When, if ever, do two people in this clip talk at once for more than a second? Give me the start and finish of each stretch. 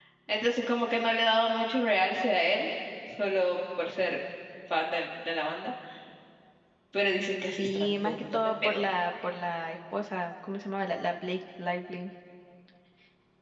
7.6-8.8

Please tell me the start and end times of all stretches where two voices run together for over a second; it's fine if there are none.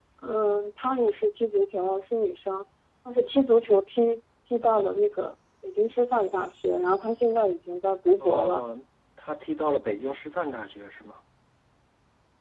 none

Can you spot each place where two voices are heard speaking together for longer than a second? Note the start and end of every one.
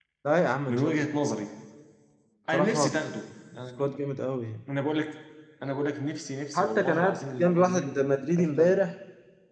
6.5-7.8

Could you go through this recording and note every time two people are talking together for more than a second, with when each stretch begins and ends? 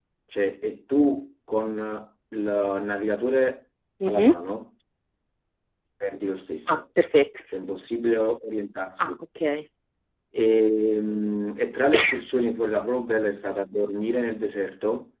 none

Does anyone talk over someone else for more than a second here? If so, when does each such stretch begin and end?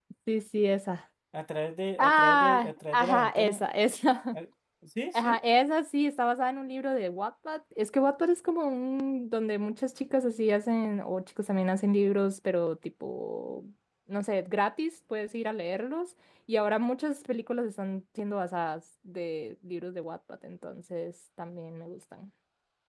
2.0-3.6

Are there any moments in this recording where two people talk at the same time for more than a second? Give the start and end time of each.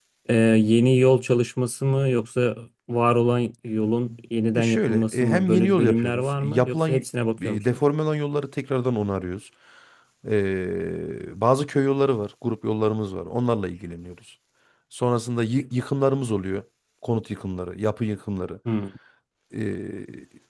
4.5-7.0

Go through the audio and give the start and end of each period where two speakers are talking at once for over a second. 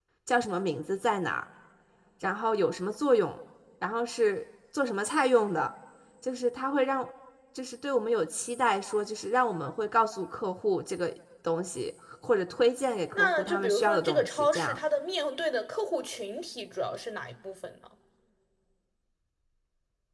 13.2-14.8

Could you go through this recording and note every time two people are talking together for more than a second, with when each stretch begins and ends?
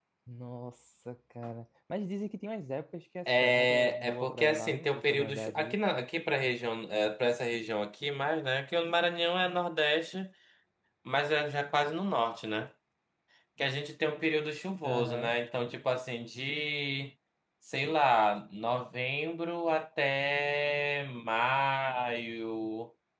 3.3-5.8

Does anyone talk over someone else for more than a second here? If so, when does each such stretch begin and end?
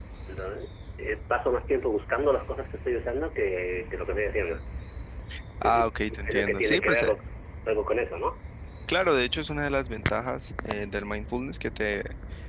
5.6-7.1

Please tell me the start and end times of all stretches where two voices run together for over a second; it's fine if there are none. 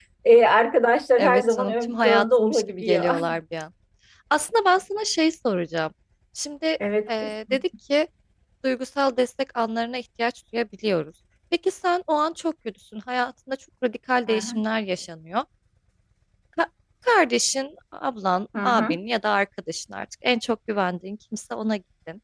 1.2-3.1

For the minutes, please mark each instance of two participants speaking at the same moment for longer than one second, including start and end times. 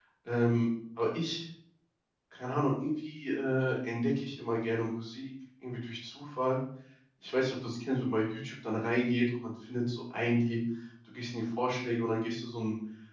none

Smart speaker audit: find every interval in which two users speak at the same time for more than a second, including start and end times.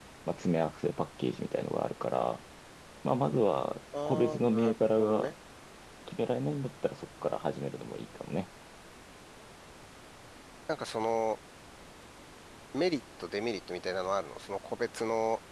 4.1-5.3

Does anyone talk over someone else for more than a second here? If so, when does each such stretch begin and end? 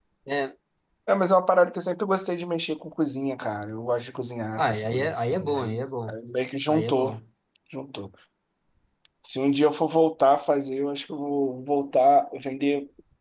4.6-5.9

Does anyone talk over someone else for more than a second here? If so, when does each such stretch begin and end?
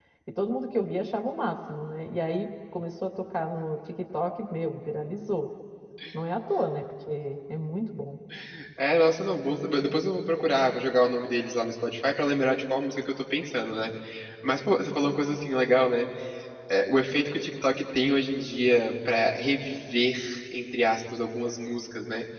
none

